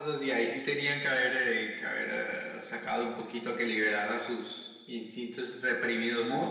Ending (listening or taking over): taking over